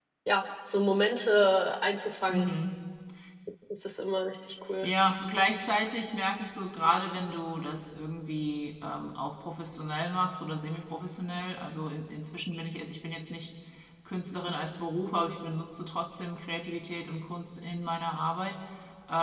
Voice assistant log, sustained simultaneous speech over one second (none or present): none